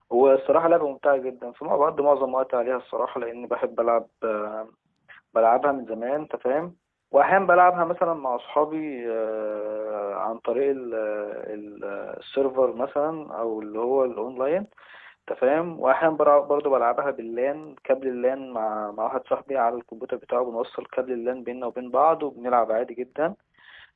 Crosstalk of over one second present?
No

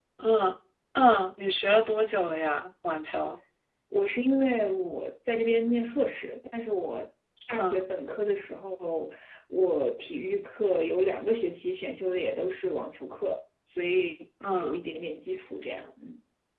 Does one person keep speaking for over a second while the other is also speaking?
No

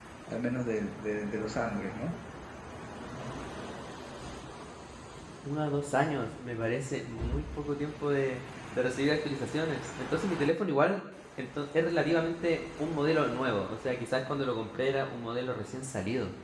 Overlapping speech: No

